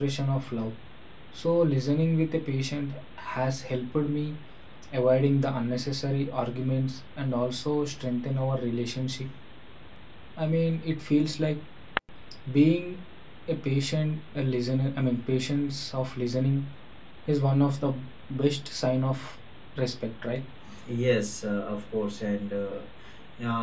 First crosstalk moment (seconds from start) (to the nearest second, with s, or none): none